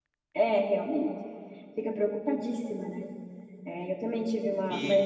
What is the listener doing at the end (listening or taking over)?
taking over